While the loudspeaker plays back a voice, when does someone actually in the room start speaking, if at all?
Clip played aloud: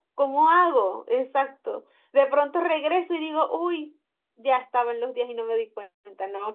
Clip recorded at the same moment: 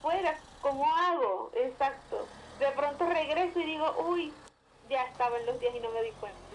none

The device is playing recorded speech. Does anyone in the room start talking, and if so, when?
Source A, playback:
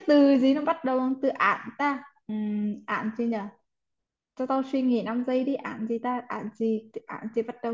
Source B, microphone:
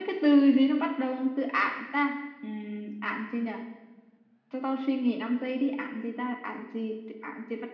none

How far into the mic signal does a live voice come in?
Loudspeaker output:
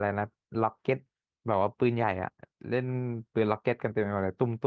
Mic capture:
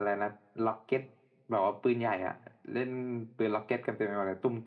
none

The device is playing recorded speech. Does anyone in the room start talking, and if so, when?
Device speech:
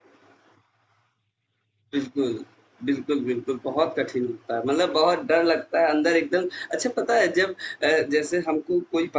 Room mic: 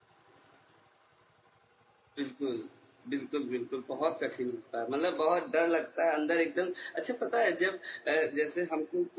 none

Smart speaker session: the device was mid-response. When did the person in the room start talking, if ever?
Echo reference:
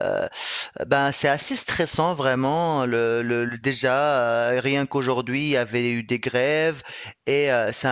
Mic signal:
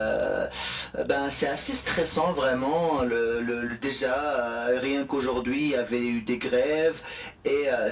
none

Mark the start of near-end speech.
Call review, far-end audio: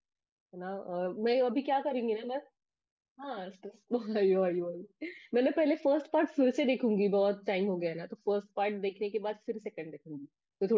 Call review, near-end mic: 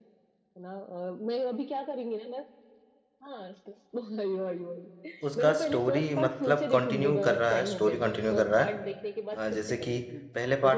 5.3 s

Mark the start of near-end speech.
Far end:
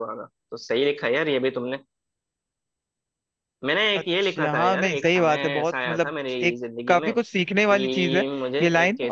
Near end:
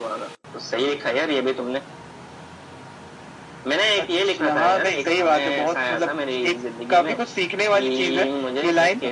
none

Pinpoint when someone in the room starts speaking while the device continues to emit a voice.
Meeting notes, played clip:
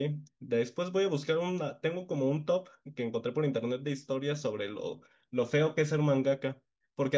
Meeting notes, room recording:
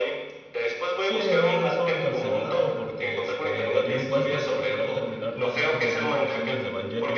1.0 s

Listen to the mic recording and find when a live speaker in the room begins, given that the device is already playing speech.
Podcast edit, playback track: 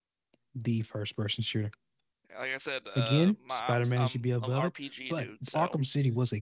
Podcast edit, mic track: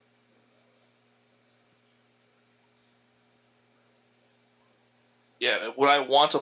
5.4 s

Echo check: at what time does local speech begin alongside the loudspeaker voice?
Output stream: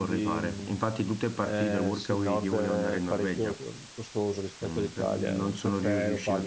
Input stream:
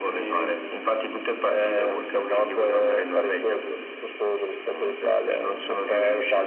none

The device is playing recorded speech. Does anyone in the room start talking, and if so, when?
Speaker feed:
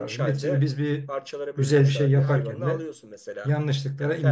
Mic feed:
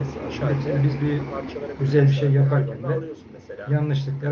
none

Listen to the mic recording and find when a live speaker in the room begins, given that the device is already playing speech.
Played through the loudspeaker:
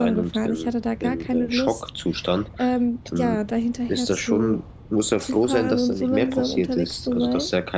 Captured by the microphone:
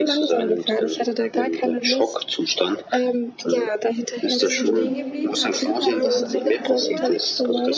4.3 s

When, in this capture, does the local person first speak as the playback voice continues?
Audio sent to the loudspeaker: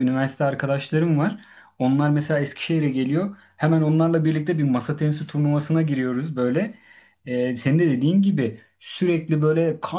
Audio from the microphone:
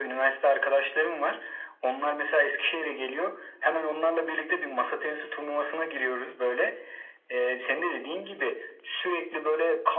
none

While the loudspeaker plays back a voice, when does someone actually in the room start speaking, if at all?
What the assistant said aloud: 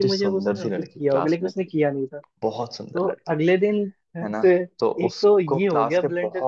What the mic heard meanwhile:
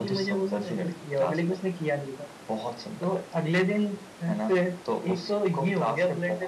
none

